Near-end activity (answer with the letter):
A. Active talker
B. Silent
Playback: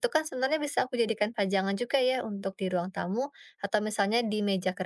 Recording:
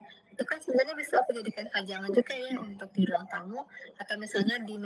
B